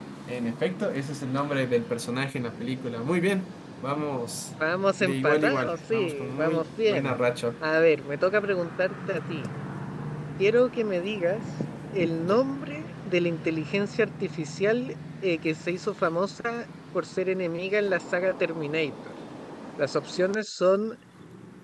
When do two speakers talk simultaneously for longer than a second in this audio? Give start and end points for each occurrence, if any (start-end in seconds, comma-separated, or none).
5.0-7.2